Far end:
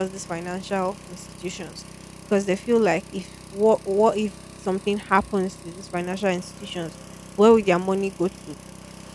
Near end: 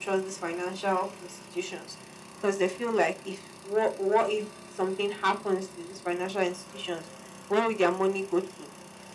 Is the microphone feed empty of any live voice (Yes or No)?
Yes